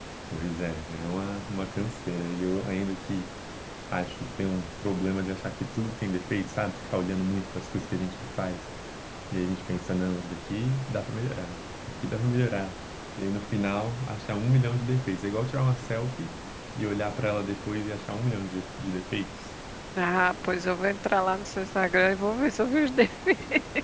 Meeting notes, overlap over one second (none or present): none